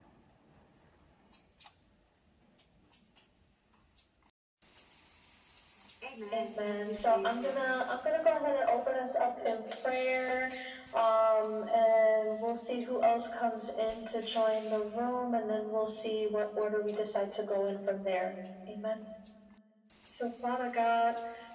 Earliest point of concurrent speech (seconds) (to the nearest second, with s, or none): 6 s